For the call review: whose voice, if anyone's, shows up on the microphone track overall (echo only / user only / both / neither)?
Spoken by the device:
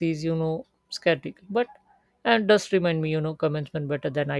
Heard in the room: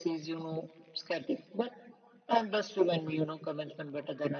echo only